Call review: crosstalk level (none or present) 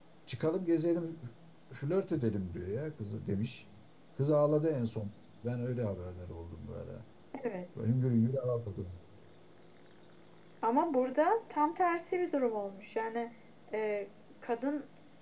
none